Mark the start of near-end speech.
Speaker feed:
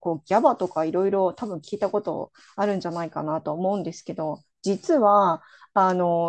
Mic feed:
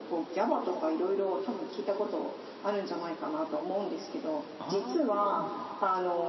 5 s

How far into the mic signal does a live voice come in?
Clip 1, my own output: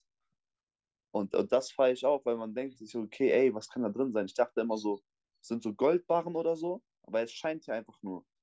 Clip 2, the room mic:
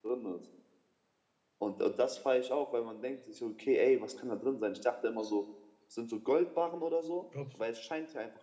7 s

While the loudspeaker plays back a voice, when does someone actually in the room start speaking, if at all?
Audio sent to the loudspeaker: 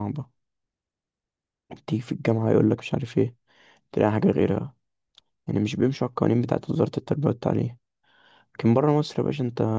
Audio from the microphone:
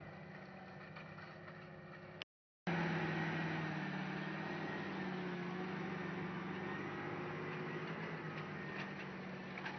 none

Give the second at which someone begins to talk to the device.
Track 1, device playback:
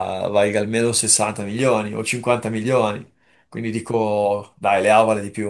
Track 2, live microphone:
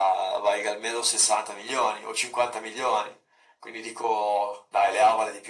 none

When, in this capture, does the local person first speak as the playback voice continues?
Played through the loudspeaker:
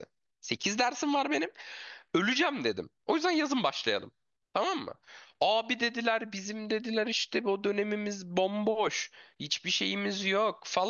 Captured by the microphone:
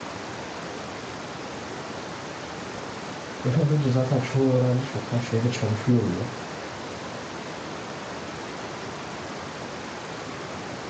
3 s

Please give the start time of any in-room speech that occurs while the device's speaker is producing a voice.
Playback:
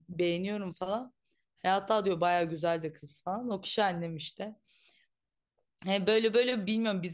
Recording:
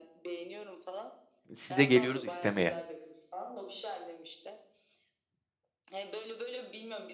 2 s

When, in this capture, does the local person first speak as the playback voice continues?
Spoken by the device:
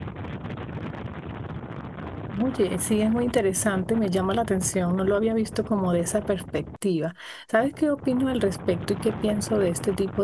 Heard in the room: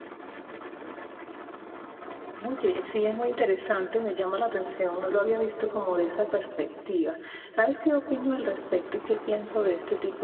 none

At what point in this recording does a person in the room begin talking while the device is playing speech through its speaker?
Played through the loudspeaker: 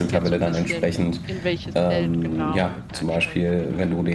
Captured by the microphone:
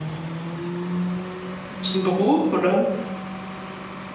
2 s

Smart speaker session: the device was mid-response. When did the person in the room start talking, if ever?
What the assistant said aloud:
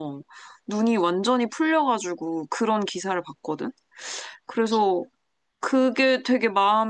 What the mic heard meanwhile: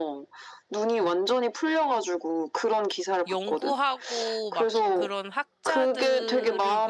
3 s

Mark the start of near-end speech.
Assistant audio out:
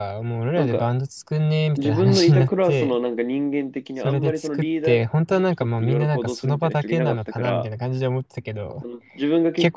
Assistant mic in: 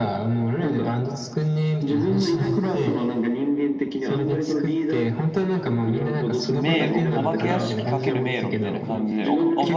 6 s

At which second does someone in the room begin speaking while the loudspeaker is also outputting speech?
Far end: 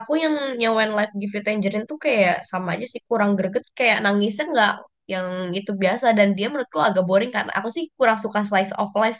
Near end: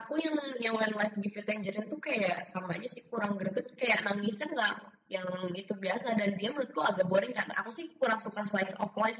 none

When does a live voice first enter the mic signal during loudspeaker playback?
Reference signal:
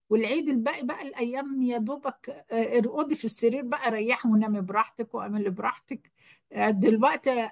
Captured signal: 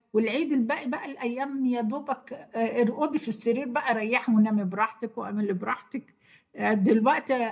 none

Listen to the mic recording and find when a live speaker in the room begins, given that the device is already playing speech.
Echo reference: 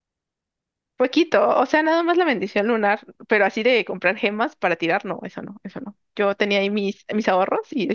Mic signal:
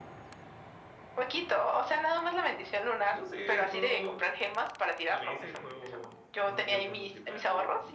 3 s

